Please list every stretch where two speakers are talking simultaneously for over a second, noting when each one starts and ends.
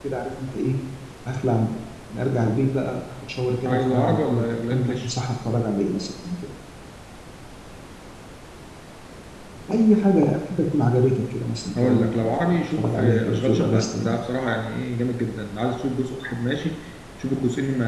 3.6-5.1, 11.8-14.2

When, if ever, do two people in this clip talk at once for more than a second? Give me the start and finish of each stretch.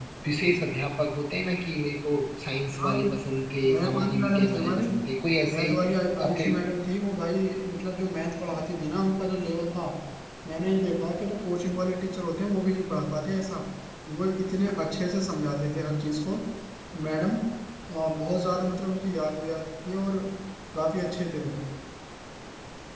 2.8-4.8

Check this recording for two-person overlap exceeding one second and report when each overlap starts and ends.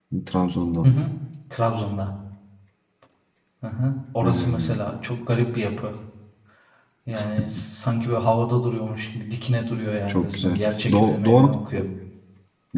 10.1-11.5

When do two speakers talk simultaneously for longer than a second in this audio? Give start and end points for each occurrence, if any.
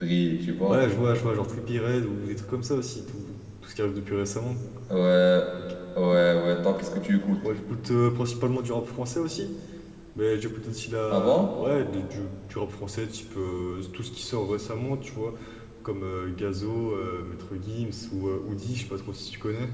none

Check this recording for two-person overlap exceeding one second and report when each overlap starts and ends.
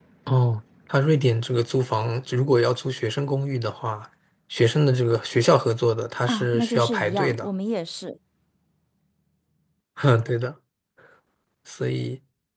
6.3-7.5

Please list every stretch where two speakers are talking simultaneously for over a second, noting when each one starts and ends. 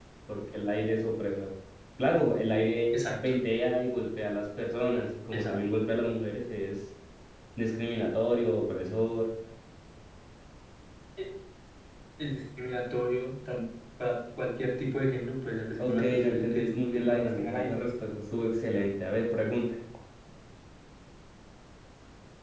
15.8-17.7

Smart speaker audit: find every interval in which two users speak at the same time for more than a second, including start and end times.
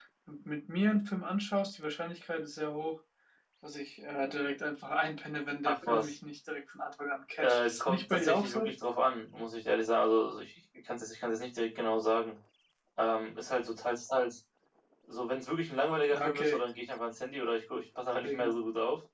7.4-8.7

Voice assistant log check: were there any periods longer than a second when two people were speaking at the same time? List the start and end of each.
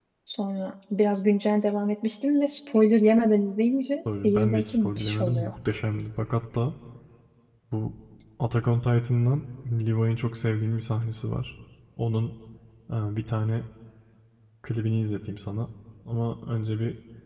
4.2-5.5

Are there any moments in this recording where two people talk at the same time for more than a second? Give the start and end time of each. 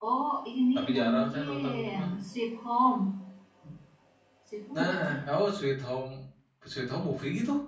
0.8-2.1

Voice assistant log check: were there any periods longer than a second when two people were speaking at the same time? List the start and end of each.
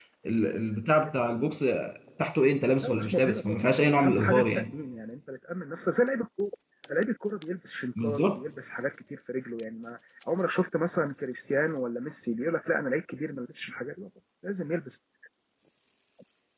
2.8-4.7

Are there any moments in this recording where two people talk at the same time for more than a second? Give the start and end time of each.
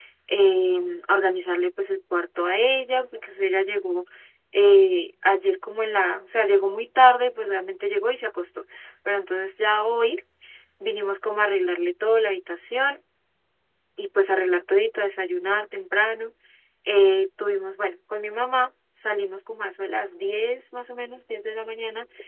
none

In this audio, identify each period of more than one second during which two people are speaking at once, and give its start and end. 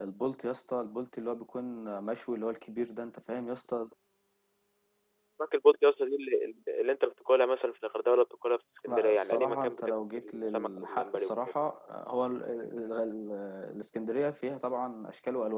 8.9-11.3

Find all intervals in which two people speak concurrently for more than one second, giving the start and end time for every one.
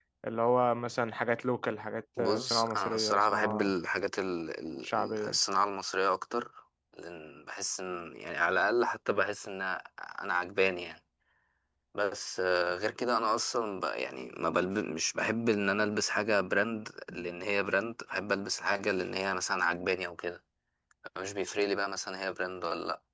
2.2-3.7

